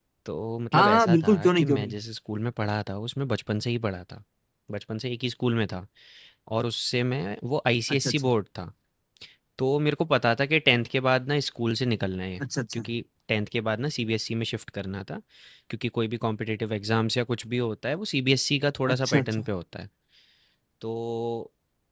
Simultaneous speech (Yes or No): Yes